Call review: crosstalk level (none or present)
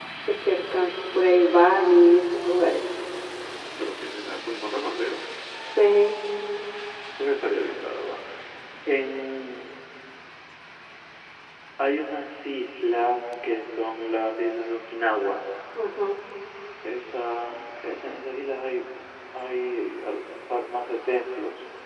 none